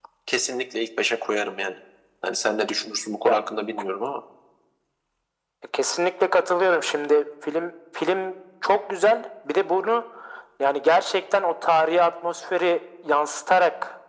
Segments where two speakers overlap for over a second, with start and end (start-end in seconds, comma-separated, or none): none